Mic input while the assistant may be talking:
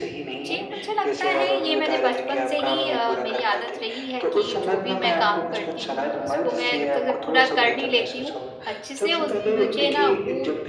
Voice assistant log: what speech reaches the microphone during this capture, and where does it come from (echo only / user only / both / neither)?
both